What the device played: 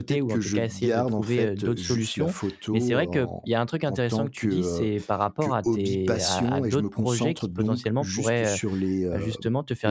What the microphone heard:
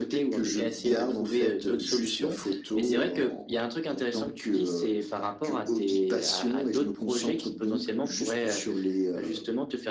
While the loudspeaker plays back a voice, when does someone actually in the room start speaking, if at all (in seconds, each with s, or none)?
none